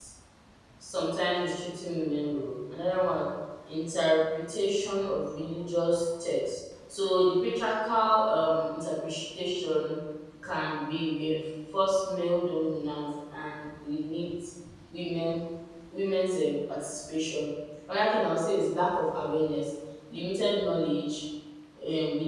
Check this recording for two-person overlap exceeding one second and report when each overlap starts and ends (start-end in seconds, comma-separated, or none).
none